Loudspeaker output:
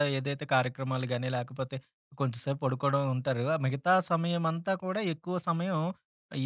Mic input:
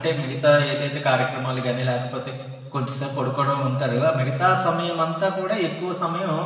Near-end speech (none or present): none